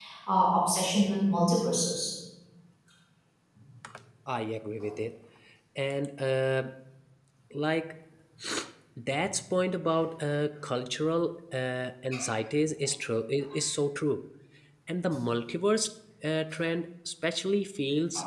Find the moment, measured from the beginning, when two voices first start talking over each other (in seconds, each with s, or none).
none